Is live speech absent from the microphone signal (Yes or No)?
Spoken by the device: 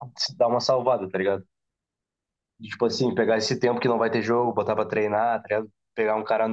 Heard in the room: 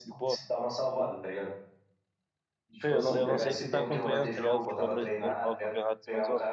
No